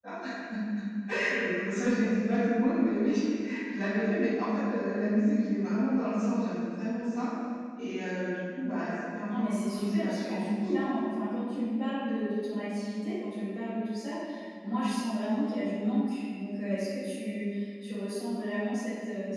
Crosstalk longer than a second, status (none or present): present